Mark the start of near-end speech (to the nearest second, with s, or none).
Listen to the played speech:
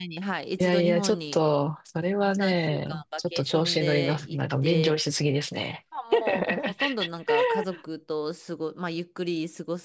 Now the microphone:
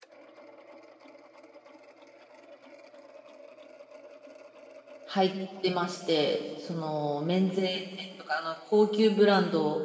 5 s